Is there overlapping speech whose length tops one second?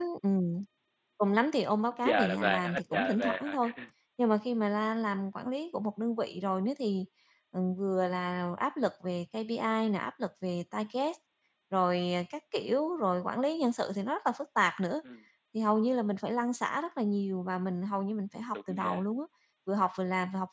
Yes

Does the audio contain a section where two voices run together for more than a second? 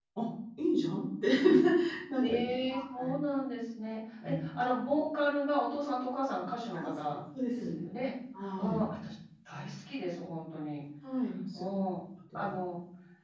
No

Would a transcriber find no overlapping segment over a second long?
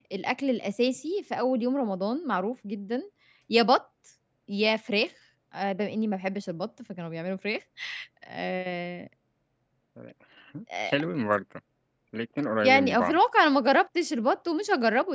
Yes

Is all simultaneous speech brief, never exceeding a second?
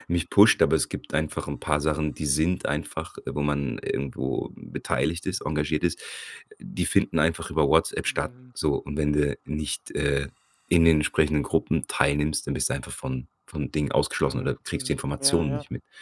No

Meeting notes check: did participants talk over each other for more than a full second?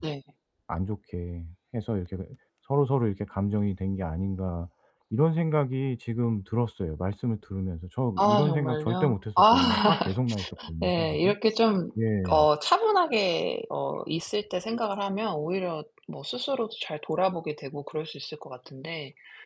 Yes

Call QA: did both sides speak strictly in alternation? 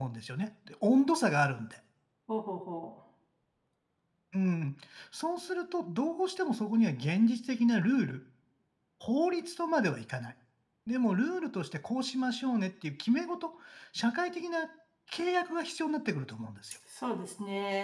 Yes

